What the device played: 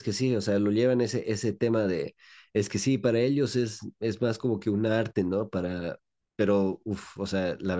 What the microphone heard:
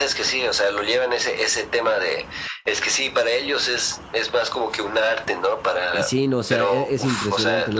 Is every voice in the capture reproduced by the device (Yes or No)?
No